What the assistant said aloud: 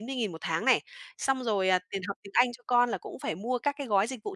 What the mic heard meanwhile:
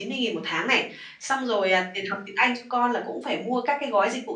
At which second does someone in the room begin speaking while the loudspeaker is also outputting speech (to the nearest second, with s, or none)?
none